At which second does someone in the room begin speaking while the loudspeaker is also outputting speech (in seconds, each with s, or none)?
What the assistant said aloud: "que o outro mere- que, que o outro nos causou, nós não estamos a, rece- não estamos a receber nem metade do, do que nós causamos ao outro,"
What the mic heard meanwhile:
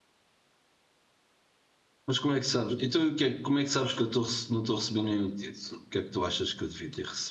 2.1 s